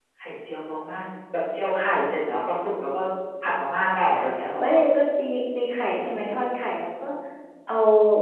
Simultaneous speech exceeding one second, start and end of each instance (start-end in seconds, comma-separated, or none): none